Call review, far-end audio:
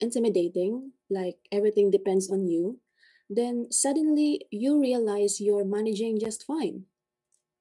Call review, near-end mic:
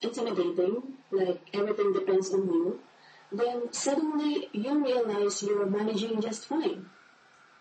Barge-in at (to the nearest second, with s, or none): none